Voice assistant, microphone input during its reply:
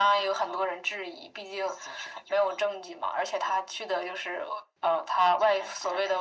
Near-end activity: none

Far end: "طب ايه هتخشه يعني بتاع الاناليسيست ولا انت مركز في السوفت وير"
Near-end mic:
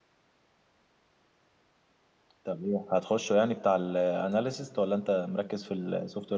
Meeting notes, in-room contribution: none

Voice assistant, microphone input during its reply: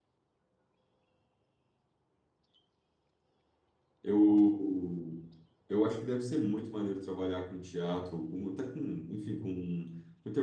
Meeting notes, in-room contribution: present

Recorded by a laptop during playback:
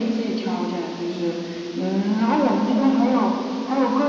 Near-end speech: none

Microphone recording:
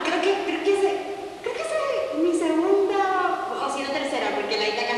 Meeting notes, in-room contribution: none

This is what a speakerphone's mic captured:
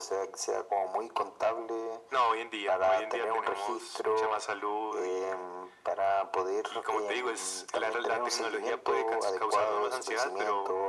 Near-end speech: none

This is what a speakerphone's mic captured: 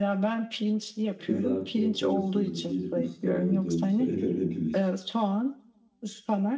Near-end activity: present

